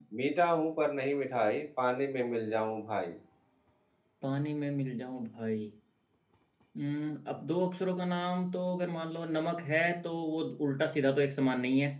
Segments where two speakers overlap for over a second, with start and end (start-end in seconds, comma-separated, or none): none